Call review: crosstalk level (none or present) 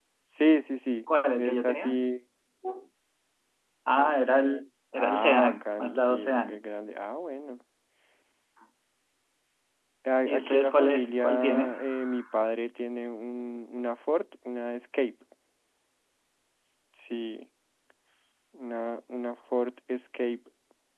present